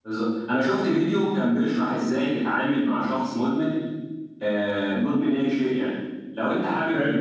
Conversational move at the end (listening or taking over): listening